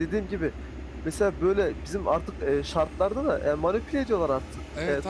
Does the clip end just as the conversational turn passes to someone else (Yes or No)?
Yes